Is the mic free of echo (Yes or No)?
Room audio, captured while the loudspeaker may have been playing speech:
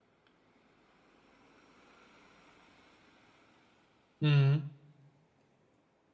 Yes